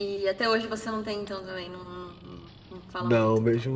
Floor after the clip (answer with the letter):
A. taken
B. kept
A